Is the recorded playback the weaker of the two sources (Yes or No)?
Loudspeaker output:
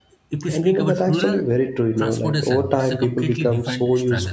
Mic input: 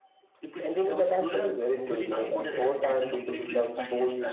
No